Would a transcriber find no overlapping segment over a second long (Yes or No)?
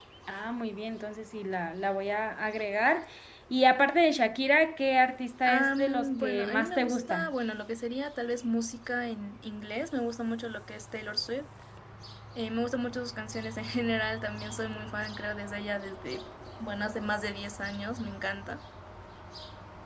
No